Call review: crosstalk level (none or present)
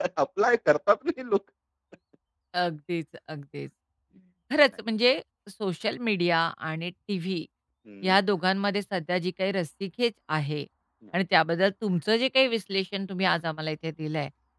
none